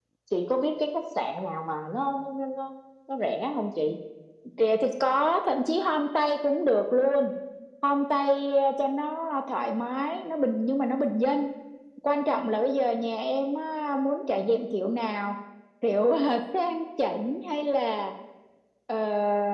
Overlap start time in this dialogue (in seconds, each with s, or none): none